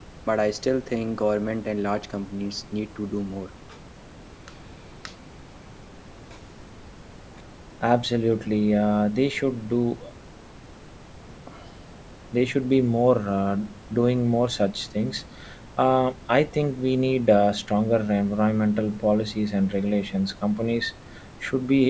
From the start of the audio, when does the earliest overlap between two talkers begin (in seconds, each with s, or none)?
none